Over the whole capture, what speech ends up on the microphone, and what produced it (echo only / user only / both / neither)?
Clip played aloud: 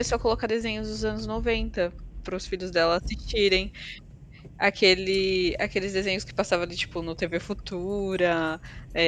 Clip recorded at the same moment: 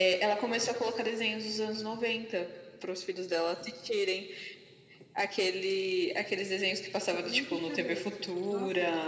both